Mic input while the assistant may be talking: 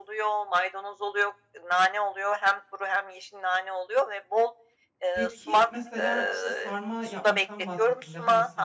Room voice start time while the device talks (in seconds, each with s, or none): 5.1 s